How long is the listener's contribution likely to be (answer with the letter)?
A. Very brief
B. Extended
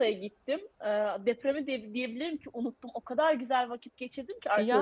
A